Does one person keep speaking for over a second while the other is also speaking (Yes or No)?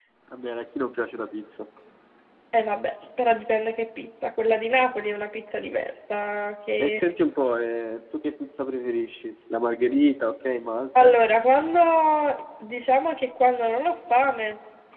No